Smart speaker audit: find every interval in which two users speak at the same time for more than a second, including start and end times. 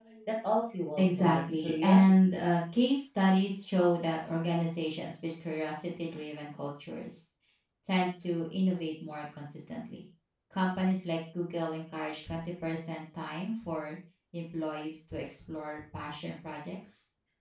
1.0-2.3

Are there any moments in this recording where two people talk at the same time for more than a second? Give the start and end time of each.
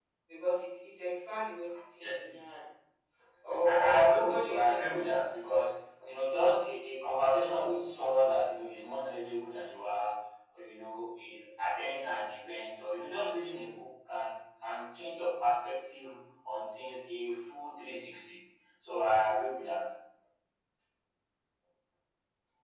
3.6-4.8

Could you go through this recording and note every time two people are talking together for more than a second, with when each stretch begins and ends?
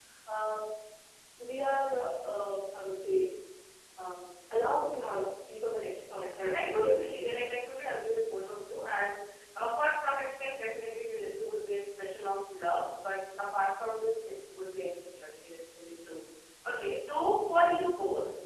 6.1-7.6

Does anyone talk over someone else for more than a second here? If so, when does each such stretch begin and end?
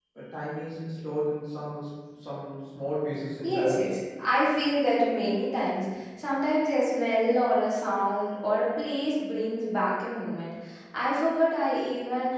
none

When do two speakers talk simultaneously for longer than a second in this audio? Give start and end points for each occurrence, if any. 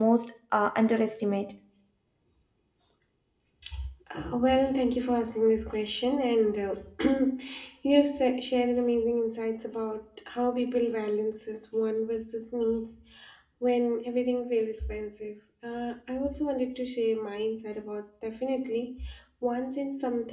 none

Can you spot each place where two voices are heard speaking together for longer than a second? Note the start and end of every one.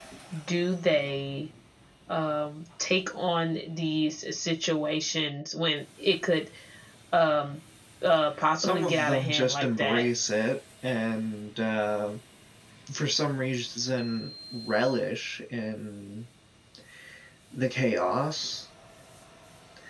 8.6-10.1

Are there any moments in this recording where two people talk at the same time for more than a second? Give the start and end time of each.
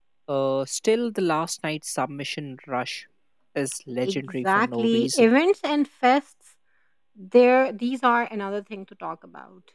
4.0-5.3

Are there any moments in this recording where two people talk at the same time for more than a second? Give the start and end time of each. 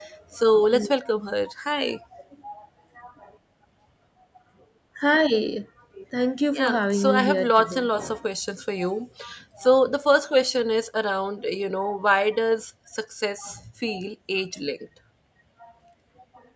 6.5-7.9

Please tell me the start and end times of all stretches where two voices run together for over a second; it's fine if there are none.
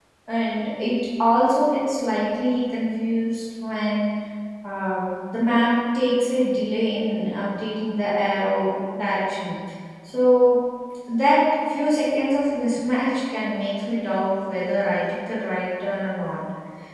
none

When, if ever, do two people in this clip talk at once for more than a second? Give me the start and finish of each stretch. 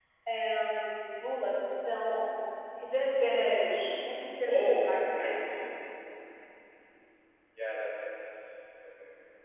3.5-5.3

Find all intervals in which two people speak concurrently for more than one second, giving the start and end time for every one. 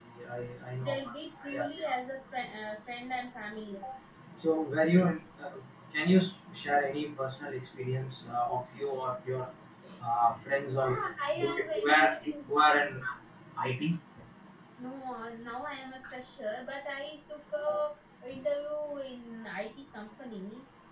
10.7-12.1

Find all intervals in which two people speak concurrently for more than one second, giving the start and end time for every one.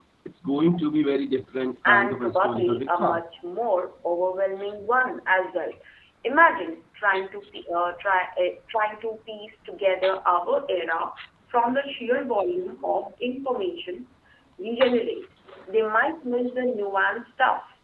1.9-3.2

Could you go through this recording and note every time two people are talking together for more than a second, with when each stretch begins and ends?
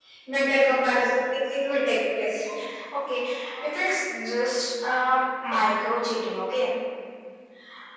none

